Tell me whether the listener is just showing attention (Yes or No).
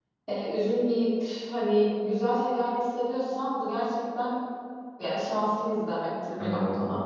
No